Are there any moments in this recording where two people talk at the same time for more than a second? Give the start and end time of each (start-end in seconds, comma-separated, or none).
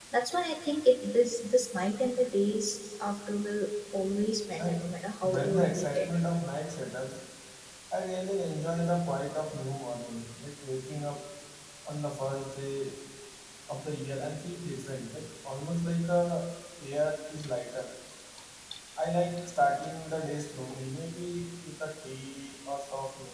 4.6-6.1